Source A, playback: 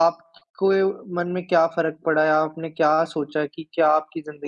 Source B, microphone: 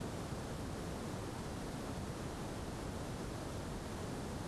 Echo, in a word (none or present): none